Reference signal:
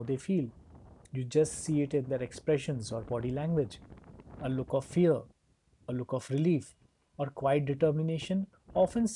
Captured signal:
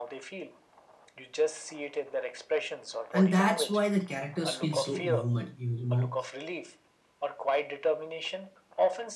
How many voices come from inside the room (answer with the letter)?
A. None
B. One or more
B